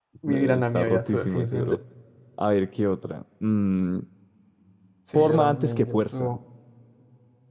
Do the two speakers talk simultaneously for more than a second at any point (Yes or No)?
Yes